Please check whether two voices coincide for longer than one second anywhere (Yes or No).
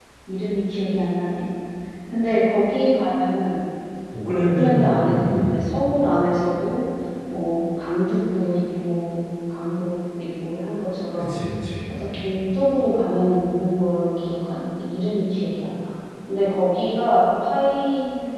Yes